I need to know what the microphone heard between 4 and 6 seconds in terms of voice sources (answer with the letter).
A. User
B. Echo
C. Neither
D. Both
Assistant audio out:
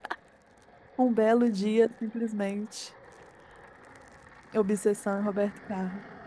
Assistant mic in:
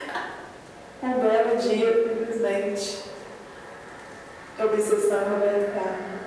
B